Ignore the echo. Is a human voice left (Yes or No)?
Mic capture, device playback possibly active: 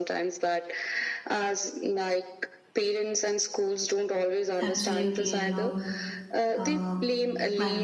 Yes